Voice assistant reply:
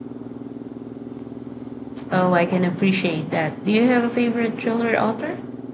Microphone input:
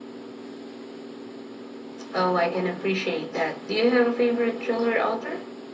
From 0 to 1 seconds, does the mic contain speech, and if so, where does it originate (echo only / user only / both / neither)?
neither